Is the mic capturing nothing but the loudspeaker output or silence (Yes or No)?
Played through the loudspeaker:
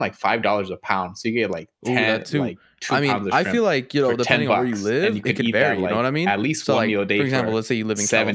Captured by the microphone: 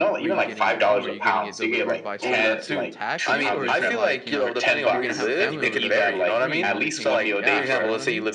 No